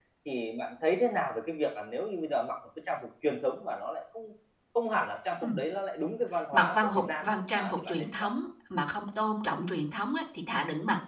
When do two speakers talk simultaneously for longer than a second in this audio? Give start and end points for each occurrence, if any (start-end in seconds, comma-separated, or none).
6.5-8.3